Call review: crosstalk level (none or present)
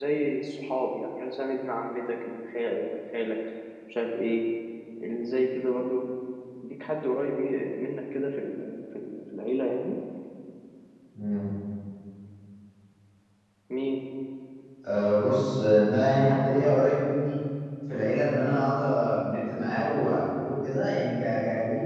none